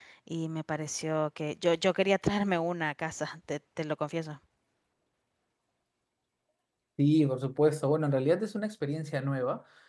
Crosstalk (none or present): none